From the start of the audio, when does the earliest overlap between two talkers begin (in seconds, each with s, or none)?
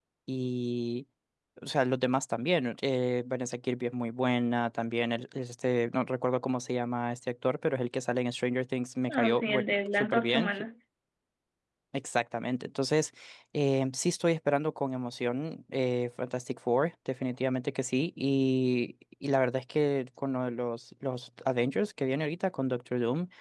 9.1 s